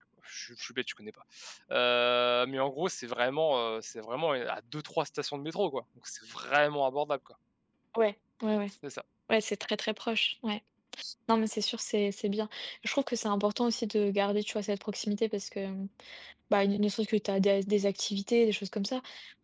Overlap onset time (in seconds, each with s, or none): none